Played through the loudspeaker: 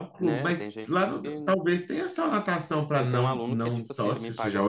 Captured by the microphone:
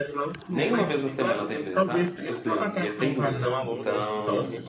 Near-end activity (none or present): present